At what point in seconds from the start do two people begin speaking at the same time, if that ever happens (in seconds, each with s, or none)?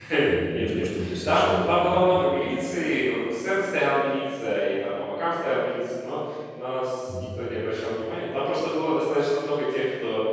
0.5 s